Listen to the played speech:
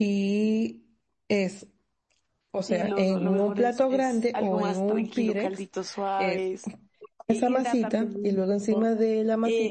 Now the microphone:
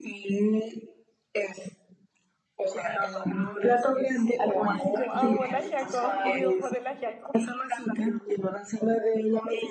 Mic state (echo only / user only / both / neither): both